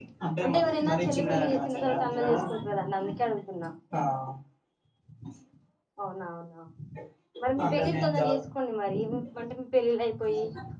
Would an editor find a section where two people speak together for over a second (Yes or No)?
Yes